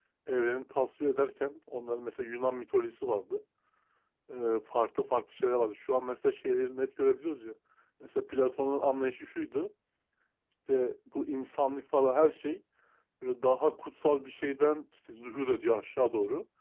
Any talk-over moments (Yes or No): No